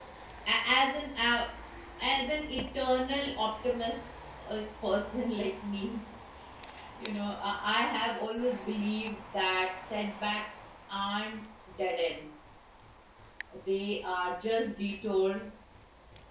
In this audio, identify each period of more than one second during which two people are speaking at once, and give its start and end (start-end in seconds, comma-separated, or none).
none